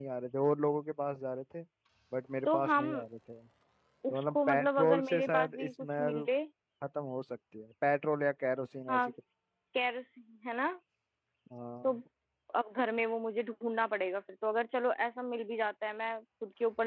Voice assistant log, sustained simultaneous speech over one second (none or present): present